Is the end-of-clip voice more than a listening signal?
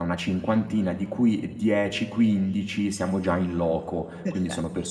No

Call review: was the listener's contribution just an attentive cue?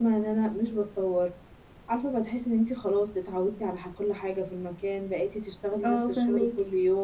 Yes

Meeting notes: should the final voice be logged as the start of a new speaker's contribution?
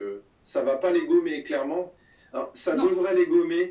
No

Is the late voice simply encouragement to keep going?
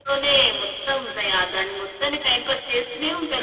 No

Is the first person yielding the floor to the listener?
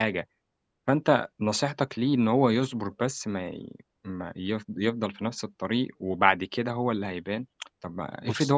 No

